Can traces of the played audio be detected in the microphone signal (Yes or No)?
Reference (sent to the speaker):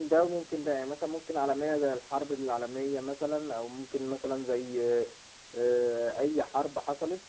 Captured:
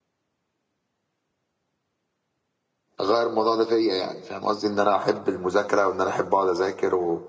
No